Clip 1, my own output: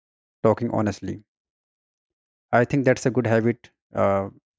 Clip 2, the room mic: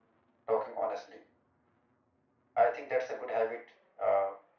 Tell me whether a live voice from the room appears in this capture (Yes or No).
No